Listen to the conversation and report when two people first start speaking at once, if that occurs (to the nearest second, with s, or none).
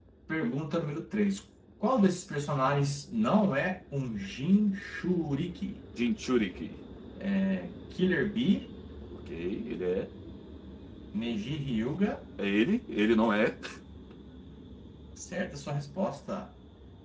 none